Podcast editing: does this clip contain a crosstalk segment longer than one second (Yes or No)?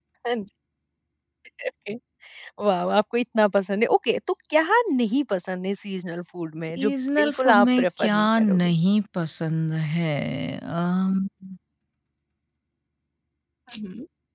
Yes